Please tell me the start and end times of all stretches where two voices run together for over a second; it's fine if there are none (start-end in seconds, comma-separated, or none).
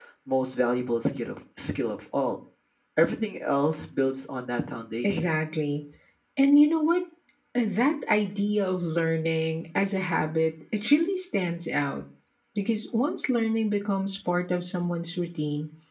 none